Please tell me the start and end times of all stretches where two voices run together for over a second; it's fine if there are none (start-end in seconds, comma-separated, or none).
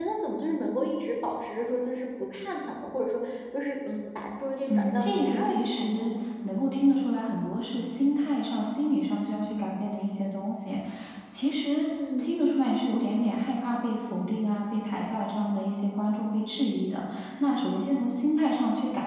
4.7-6.1